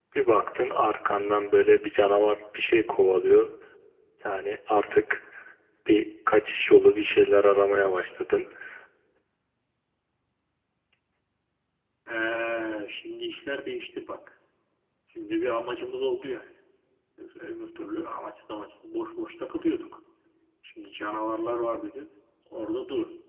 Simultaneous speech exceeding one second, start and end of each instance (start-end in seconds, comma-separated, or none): none